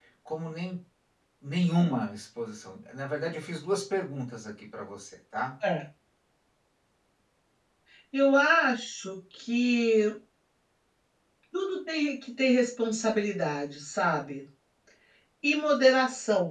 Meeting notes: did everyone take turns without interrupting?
Yes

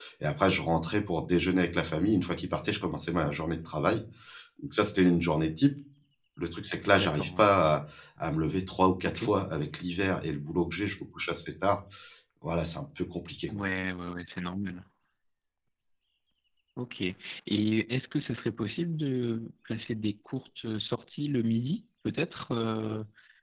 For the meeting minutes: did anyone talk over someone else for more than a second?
No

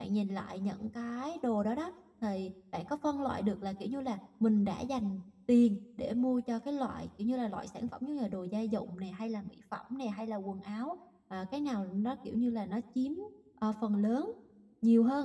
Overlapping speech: No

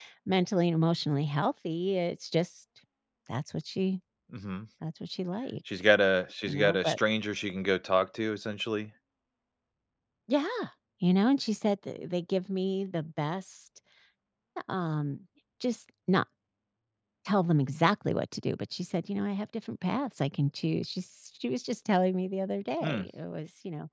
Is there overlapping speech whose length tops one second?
No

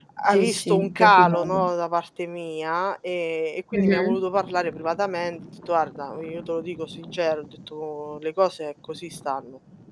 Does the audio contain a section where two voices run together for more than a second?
Yes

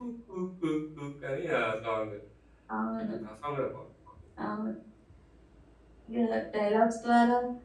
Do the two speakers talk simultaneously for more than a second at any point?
No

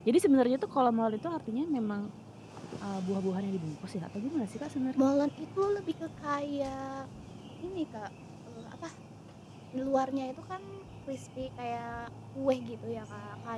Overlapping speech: No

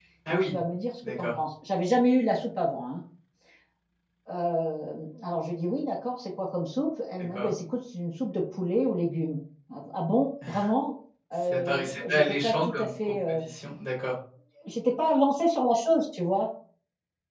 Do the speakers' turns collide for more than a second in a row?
Yes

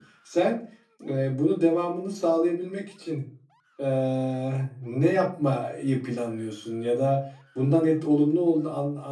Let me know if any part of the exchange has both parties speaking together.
No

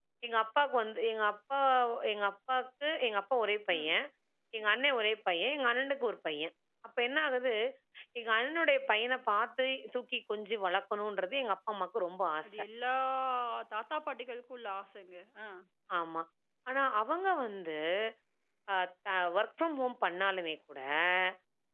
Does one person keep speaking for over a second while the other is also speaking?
No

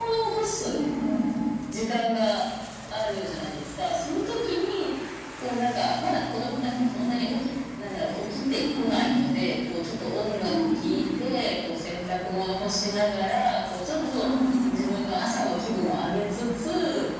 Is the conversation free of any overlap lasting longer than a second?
Yes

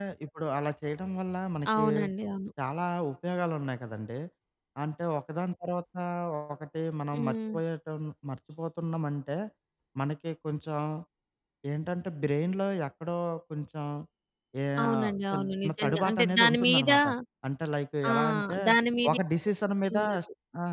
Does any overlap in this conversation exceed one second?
Yes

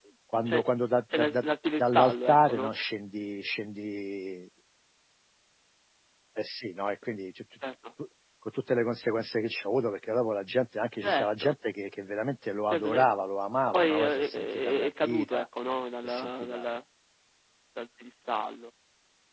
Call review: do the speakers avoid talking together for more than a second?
No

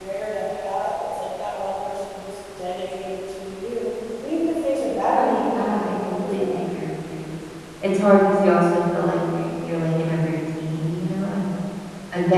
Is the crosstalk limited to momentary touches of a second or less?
No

